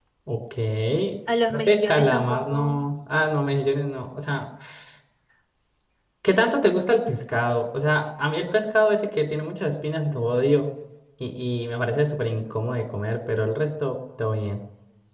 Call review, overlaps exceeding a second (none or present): present